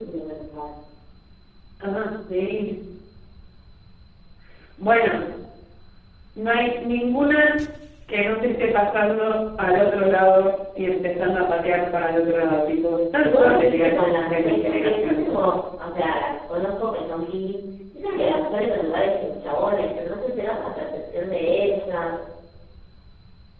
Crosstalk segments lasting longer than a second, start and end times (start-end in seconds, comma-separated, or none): 13.2-15.3